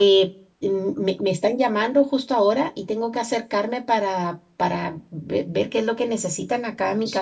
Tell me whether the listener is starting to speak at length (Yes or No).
Yes